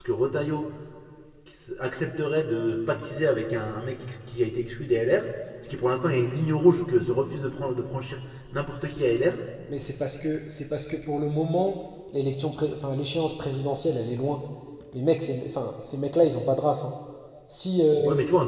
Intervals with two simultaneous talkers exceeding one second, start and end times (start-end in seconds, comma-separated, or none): none